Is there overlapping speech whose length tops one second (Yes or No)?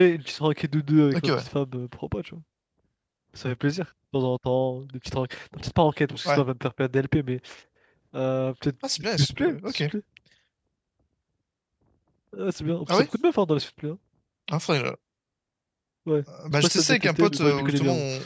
Yes